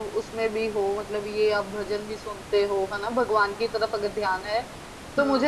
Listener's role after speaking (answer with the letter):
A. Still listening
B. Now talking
A